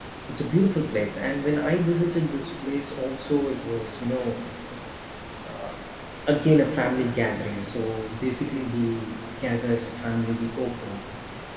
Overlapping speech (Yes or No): No